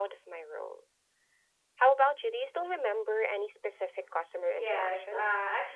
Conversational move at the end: taking over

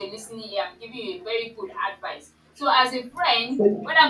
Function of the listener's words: listening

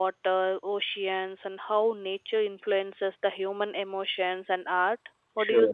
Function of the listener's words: taking over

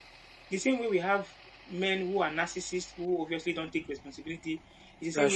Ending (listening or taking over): listening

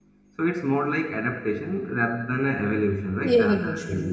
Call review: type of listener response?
taking over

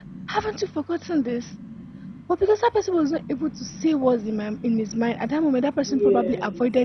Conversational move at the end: listening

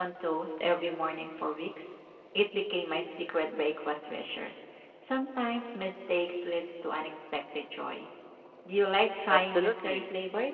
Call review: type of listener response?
taking over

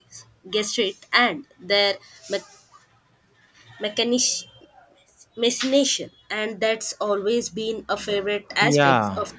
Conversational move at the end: taking over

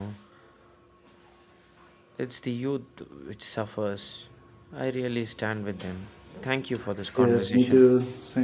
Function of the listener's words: taking over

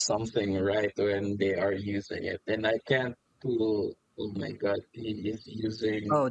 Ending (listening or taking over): taking over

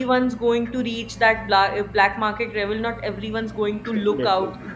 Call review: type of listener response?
listening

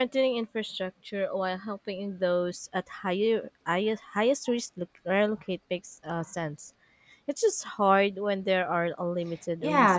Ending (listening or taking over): taking over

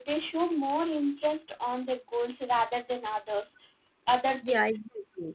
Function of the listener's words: taking over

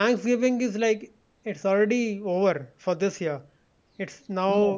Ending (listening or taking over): listening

